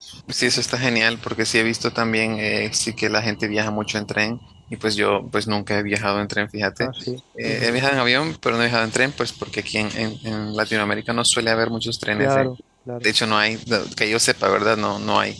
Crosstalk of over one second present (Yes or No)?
No